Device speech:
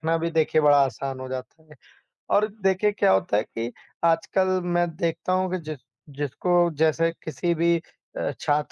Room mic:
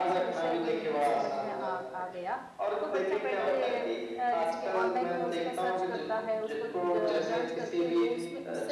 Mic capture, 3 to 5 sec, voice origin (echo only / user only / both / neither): both